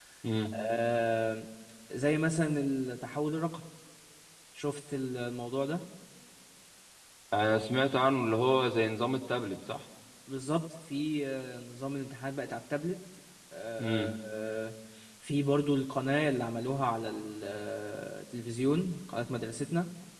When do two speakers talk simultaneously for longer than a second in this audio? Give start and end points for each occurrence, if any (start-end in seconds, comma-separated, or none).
none